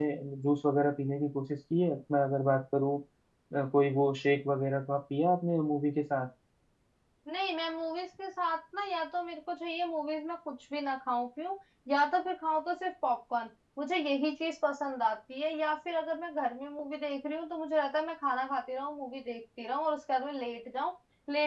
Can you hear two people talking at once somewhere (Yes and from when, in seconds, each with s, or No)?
No